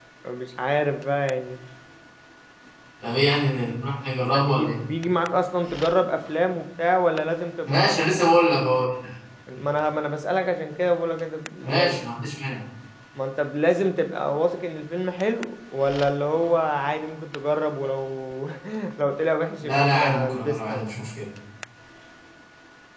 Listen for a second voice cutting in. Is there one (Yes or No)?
Yes